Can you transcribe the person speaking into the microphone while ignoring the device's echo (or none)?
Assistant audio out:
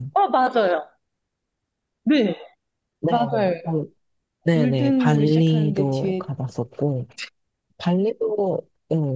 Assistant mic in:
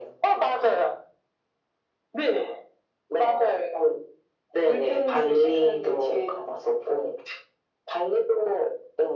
none